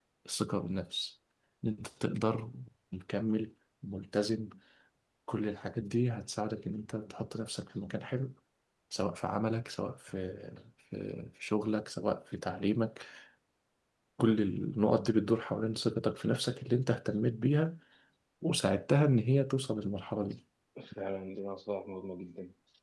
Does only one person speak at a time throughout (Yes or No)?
Yes